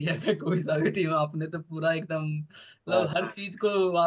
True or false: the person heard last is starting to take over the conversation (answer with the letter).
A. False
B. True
A